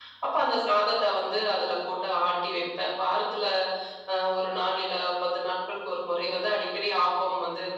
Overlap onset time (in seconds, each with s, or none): none